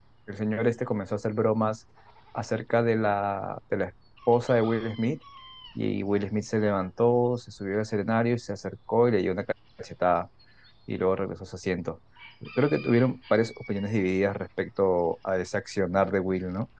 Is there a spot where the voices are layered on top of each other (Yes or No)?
No